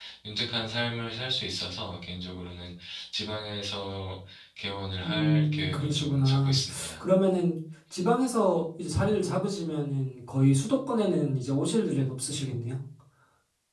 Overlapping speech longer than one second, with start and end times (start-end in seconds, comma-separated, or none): 5.0-7.0